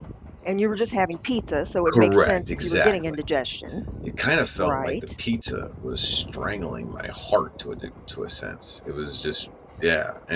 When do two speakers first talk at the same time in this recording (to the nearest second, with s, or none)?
2 s